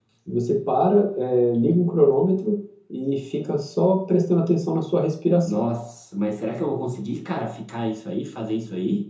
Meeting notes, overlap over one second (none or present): none